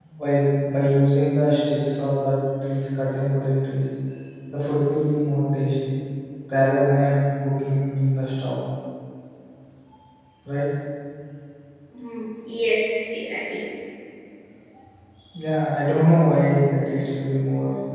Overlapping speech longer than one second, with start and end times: none

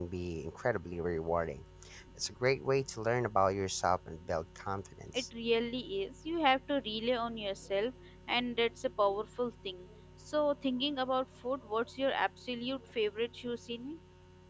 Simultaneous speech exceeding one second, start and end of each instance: none

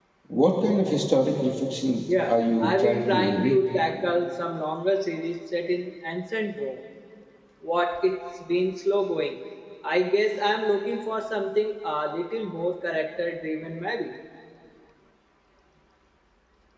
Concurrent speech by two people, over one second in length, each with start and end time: 2.3-3.6

